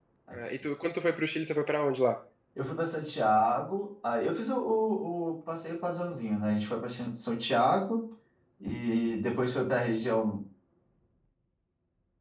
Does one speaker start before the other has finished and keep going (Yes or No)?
No